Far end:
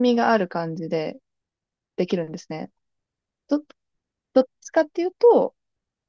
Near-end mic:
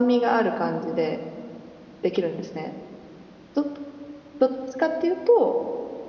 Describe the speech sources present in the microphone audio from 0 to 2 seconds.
echo only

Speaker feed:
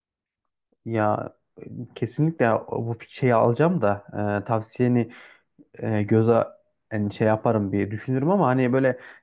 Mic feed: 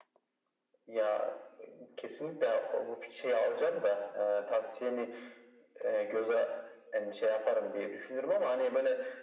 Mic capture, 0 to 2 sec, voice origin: echo only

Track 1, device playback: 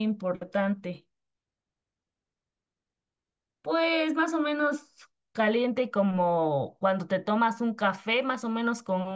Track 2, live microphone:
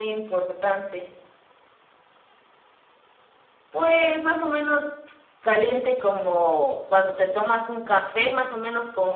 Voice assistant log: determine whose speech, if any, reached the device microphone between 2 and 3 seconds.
neither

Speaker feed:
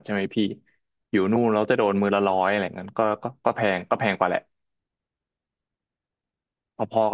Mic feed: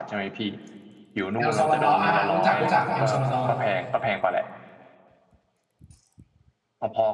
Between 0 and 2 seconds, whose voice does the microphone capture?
both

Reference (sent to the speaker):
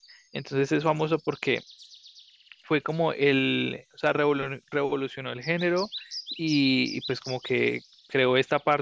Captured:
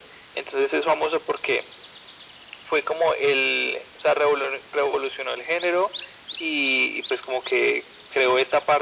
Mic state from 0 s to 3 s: echo only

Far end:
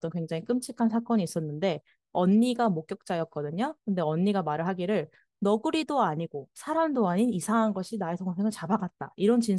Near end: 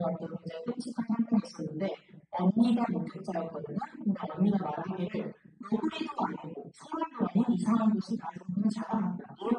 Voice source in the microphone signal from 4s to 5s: echo only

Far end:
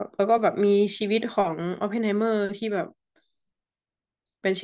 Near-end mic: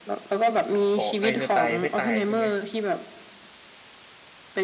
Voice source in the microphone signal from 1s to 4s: both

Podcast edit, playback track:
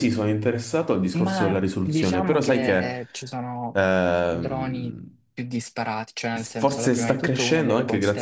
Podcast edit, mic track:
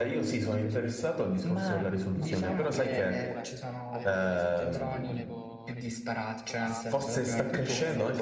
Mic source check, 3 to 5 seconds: both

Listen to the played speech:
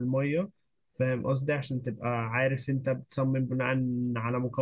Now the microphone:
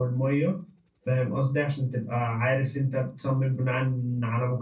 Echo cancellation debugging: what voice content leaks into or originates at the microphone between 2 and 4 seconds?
echo only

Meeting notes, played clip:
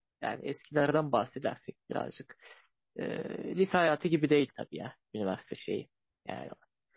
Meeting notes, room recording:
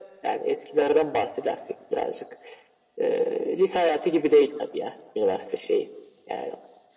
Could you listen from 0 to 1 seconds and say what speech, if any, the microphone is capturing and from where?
echo only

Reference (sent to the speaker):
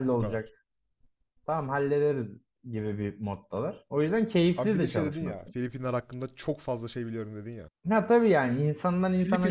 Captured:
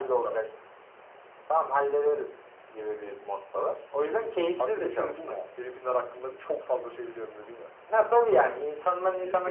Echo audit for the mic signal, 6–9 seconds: echo only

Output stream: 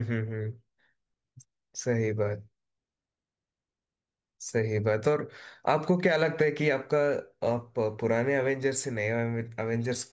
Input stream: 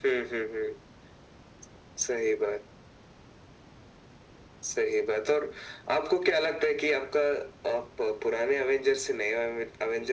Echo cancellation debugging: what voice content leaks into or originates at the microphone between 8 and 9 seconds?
echo only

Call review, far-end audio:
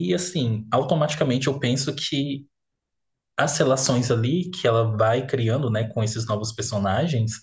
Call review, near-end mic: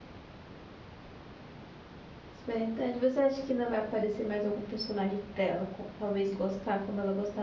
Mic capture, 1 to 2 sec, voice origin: neither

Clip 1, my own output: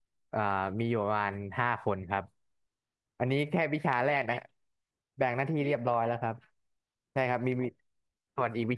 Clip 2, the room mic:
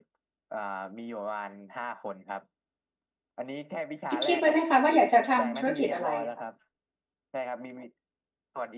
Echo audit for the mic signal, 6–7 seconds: both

